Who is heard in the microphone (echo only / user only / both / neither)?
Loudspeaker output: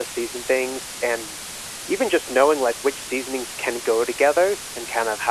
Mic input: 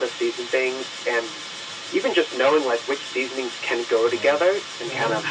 both